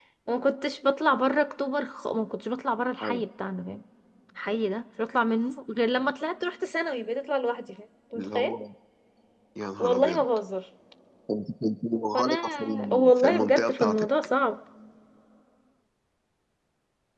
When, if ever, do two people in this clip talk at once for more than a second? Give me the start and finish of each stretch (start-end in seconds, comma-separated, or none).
12.1-14.1